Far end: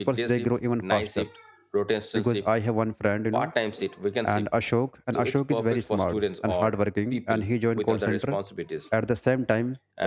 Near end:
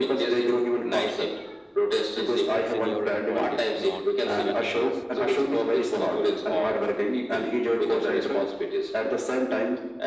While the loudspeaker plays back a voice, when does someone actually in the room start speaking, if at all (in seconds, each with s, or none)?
2.6 s